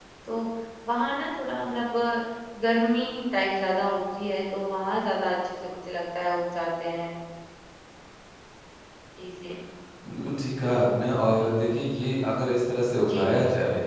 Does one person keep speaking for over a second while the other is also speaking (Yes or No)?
No